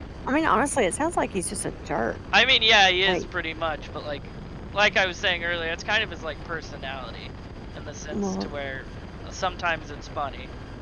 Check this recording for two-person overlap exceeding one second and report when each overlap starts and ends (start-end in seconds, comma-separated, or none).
none